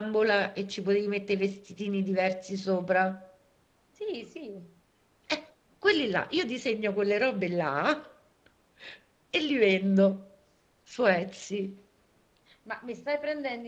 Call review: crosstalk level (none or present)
none